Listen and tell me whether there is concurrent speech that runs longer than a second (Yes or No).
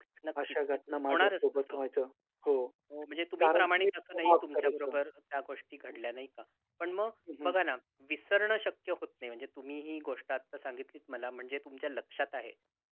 Yes